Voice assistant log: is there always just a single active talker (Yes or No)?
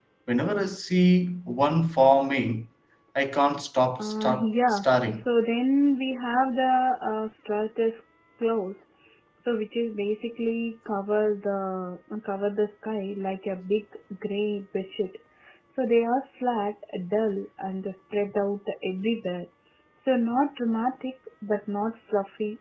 No